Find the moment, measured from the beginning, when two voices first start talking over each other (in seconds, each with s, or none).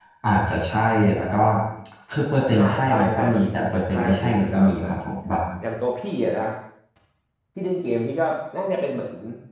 2.5 s